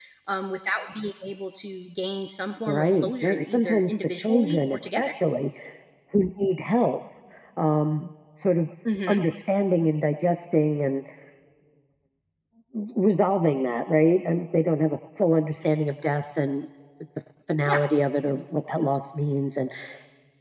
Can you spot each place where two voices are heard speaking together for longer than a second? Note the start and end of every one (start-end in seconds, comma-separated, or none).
2.7-5.2